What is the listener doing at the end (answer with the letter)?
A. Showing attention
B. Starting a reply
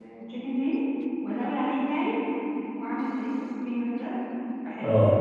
B